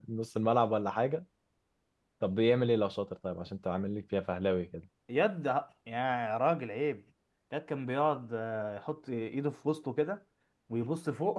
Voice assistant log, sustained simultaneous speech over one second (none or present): none